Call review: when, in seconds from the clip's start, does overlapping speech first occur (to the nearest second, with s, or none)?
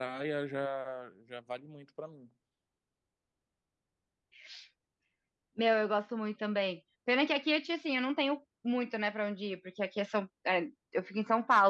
none